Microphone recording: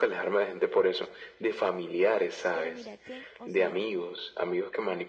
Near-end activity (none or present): present